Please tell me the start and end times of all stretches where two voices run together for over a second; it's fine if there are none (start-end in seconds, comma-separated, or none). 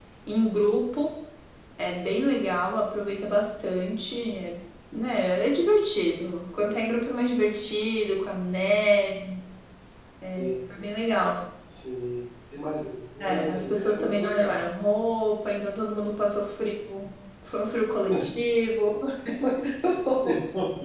13.2-14.6